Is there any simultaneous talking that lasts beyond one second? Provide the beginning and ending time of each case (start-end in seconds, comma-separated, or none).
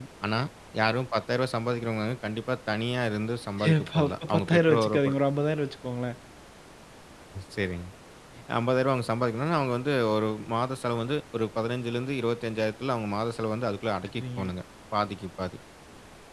3.6-5.1